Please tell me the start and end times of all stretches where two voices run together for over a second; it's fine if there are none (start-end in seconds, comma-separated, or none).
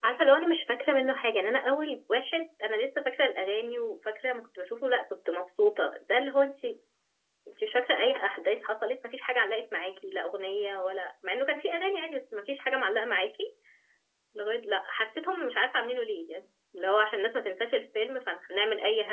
none